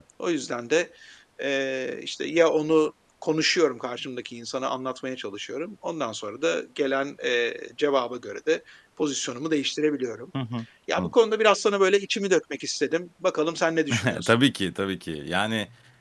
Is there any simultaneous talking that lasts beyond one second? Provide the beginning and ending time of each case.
none

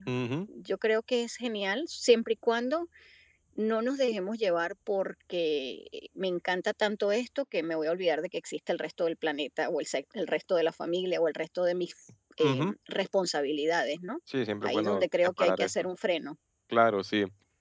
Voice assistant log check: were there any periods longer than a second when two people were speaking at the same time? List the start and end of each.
14.6-15.8

